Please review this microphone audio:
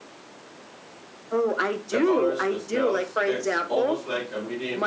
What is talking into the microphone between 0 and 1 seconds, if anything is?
neither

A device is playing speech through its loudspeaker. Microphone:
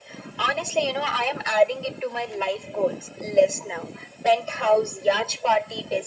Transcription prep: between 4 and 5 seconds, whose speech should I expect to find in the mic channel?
echo only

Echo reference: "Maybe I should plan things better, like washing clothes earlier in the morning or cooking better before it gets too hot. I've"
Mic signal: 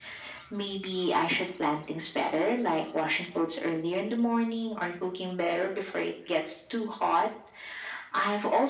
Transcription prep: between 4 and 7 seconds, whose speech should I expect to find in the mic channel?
echo only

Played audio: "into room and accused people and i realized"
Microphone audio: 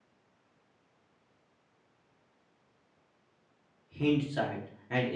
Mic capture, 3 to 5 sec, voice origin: user only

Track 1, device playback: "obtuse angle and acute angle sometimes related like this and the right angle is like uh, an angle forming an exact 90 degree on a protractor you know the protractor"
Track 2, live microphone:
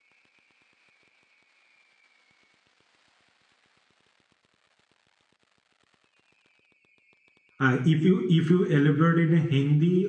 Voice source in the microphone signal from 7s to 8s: user only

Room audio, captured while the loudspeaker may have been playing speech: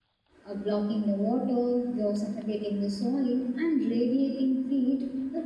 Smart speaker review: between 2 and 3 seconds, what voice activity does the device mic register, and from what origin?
user only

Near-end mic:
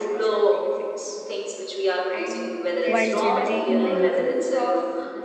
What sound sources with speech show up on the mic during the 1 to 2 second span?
echo only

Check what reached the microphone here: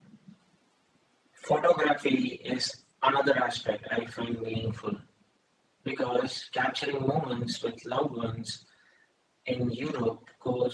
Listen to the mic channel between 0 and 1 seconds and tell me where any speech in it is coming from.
neither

